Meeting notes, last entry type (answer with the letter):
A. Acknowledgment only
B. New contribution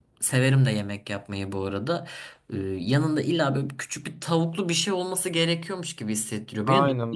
B